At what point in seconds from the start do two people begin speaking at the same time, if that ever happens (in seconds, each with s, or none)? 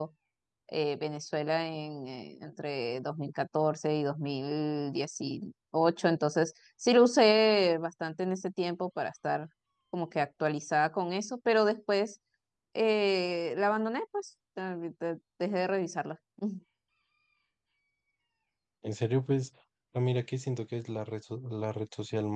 none